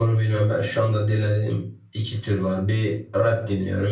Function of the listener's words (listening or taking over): listening